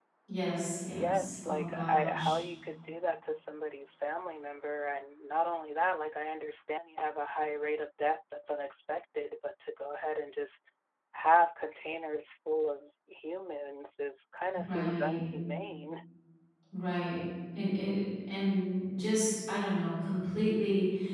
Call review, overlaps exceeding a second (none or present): present